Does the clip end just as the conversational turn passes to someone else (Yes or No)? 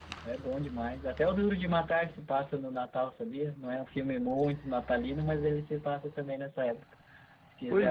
No